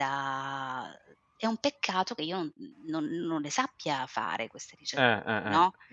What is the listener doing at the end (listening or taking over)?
taking over